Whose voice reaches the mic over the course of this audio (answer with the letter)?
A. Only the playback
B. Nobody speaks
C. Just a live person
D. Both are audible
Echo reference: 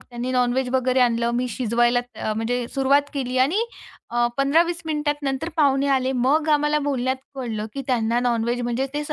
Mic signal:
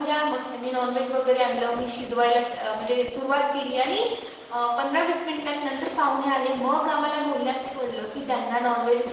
A